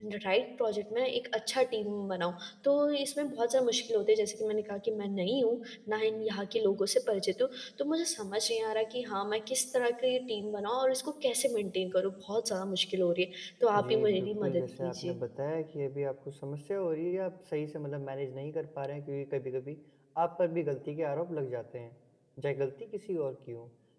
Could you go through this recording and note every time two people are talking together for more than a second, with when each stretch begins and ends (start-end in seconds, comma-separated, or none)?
13.8-15.2